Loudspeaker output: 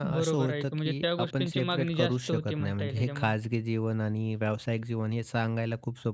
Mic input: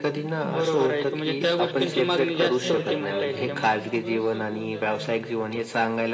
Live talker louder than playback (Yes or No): No